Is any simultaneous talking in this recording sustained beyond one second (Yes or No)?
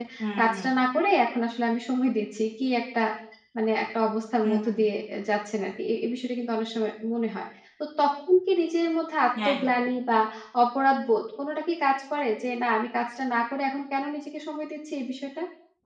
No